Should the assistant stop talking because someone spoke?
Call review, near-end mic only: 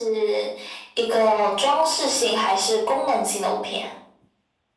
No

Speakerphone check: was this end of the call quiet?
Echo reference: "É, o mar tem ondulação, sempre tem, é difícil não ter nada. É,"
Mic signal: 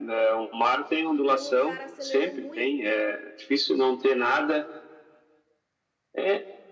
No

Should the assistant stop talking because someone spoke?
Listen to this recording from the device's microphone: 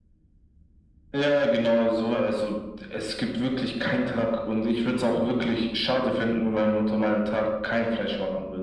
No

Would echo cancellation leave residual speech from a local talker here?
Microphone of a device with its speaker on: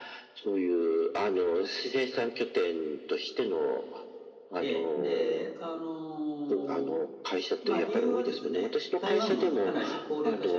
Yes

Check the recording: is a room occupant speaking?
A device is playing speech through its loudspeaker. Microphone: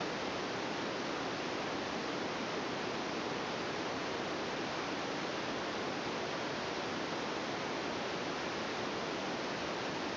No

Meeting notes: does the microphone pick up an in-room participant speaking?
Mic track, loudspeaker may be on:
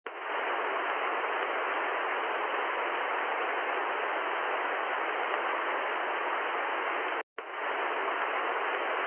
No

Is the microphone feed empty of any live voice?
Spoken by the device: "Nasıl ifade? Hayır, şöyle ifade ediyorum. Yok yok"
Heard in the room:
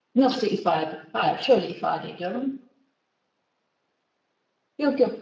Yes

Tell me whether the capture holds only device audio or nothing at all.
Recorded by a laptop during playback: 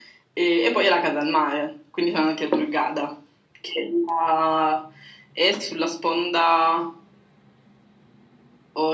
Yes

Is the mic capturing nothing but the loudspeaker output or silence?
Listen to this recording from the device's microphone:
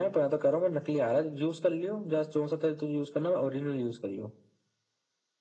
Yes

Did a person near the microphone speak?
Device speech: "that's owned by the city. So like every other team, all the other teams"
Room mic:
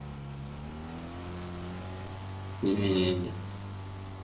Yes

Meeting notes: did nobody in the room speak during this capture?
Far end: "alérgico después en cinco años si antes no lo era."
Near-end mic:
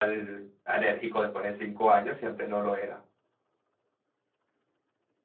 Yes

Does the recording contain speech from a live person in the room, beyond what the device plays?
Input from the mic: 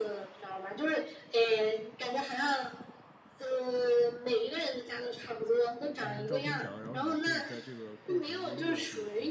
Yes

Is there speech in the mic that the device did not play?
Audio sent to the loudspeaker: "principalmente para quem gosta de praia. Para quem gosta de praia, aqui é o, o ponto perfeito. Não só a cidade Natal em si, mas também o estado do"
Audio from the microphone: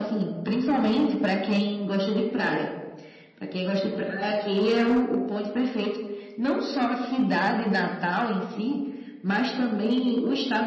No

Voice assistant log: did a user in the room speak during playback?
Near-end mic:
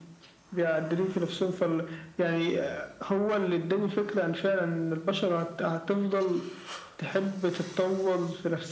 No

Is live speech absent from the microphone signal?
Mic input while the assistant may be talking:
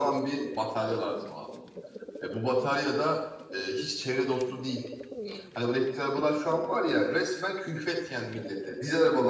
Yes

